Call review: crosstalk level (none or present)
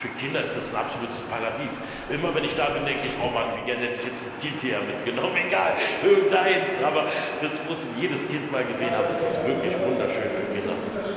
present